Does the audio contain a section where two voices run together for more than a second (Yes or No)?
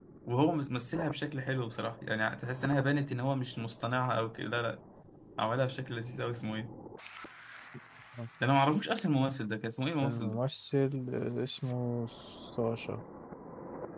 No